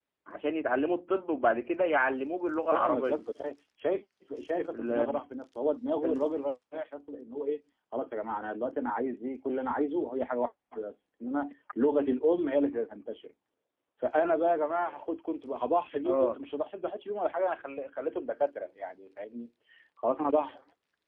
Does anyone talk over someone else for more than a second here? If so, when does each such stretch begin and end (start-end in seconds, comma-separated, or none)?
none